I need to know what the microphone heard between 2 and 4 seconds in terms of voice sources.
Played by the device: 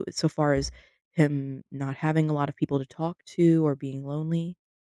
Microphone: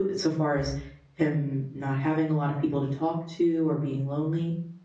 echo only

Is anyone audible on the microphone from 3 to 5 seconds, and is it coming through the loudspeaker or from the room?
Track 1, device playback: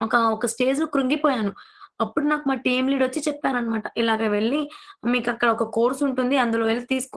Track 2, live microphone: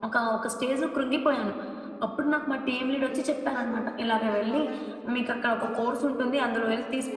both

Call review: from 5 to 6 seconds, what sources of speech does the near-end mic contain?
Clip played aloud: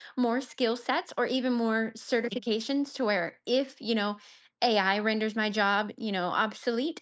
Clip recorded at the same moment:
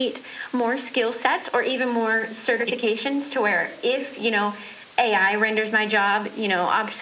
echo only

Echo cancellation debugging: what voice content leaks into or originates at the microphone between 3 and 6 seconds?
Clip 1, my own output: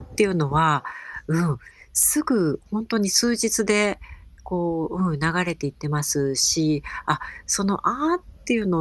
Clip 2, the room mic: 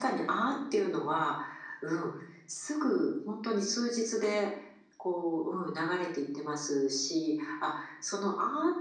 echo only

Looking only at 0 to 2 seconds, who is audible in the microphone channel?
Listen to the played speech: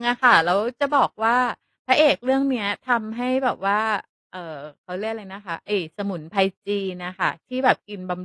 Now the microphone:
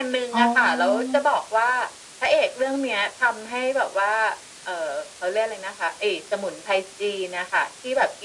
both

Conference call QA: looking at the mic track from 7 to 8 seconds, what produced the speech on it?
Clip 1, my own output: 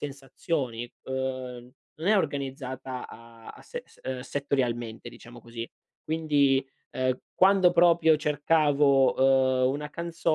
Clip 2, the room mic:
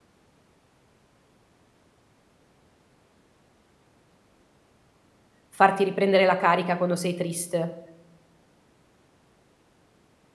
user only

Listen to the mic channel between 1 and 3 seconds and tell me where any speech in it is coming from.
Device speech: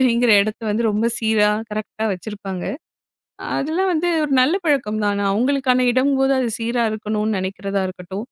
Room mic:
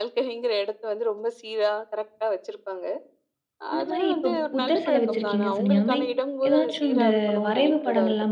echo only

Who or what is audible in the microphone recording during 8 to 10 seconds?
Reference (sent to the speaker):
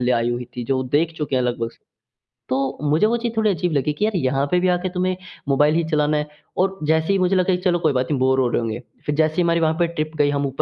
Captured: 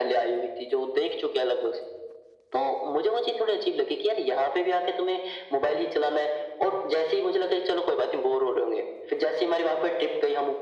echo only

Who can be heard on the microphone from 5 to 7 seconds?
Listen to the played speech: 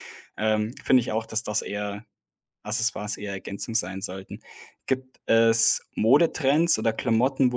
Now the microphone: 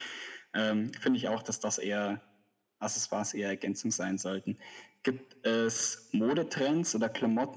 echo only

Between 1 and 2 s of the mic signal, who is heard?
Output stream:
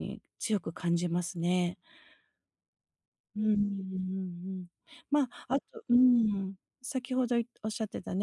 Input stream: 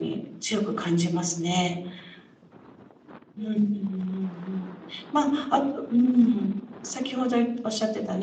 echo only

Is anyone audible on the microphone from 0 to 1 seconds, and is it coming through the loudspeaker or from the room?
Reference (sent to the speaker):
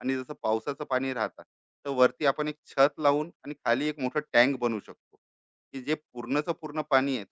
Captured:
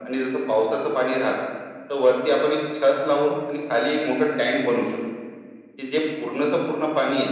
echo only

